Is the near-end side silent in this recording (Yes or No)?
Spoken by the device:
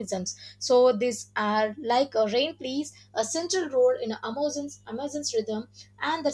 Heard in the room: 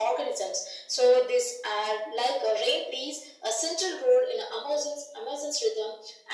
Yes